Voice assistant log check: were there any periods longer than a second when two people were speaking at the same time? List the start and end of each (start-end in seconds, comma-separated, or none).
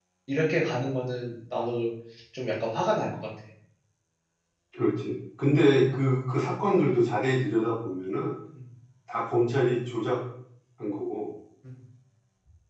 none